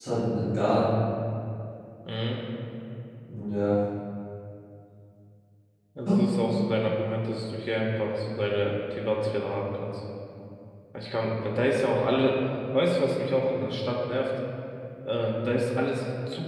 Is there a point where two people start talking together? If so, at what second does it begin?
none

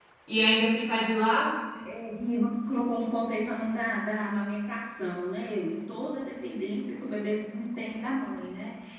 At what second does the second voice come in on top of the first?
none

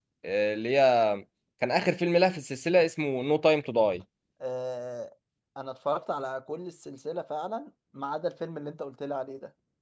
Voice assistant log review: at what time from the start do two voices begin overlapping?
none

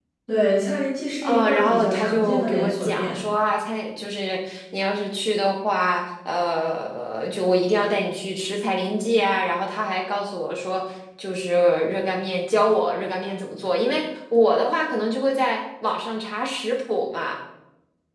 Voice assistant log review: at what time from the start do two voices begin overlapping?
1.2 s

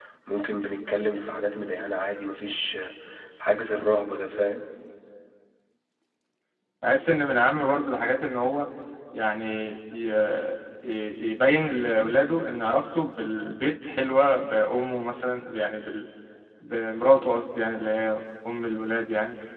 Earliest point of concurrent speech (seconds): none

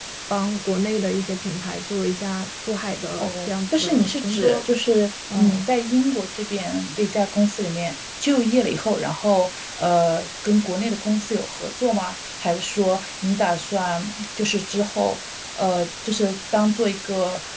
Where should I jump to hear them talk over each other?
3.2 s

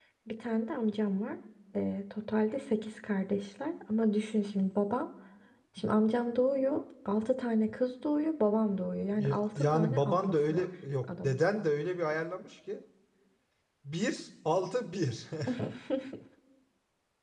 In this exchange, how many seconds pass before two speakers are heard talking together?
9.1 s

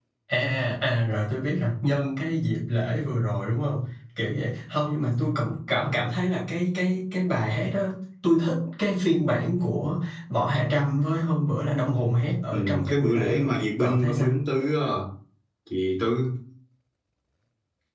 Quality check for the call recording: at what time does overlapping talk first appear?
12.5 s

